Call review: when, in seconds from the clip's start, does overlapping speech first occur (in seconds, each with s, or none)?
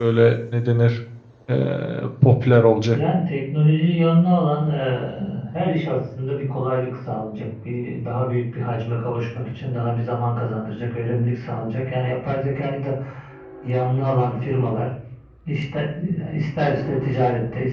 none